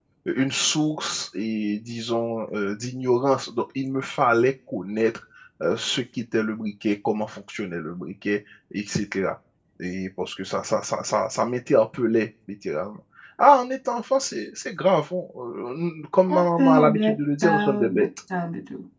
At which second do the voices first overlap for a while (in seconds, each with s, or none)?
16.3 s